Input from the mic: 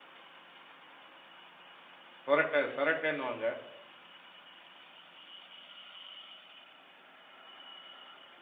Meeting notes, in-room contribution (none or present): present